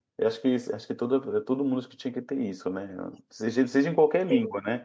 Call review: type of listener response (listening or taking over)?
listening